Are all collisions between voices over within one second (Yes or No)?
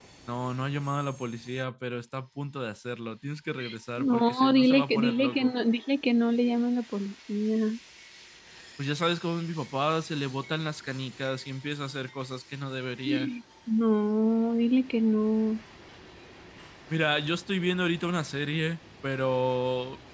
No